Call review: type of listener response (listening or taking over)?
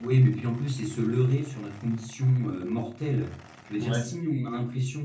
listening